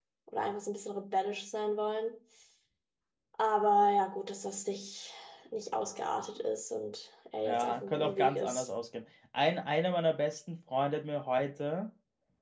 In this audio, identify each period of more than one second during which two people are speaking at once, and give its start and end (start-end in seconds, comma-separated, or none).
7.4-8.7